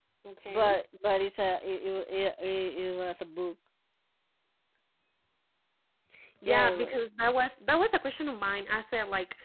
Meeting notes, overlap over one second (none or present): none